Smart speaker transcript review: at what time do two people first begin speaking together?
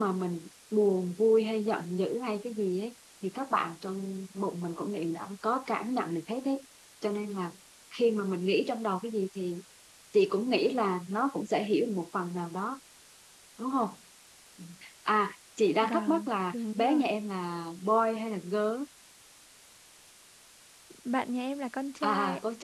16 s

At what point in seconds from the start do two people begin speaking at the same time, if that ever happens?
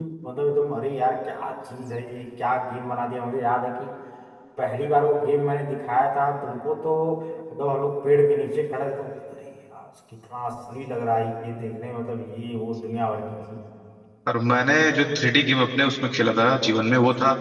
none

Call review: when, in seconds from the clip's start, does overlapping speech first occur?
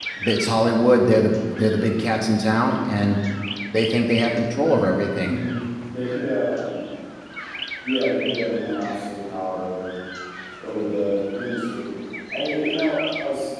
none

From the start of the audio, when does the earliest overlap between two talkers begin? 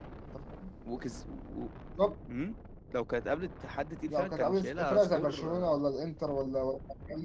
4 s

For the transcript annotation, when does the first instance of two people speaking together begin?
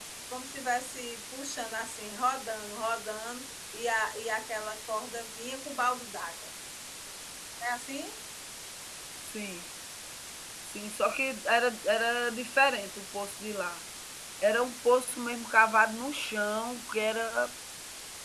none

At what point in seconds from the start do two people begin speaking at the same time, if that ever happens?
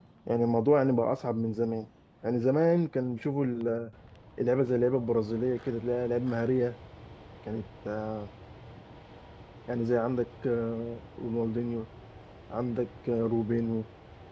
none

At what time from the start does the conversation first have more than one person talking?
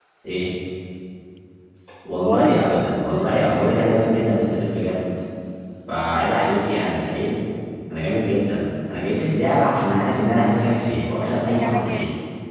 2 s

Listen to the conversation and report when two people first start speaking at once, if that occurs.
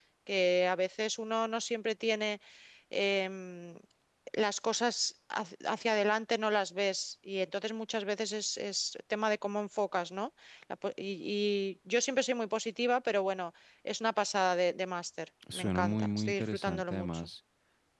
15 s

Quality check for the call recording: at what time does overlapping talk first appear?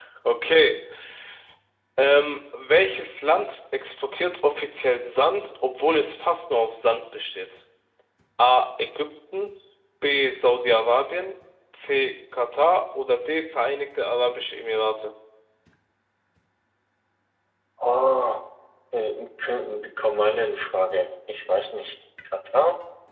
none

